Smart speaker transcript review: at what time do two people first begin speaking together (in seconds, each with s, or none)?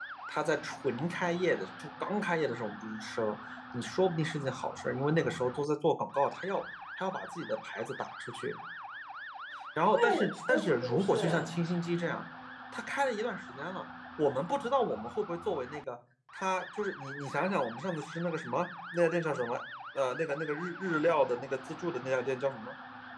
10.0 s